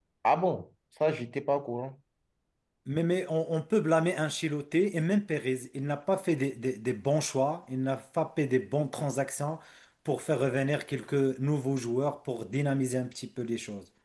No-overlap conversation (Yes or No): Yes